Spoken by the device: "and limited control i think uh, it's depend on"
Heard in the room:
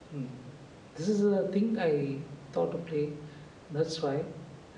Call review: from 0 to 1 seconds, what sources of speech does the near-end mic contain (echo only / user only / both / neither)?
user only